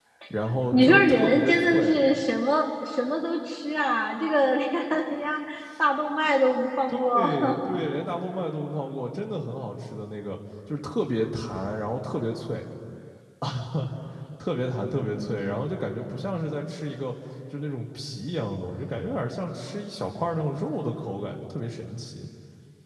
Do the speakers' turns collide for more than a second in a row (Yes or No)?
Yes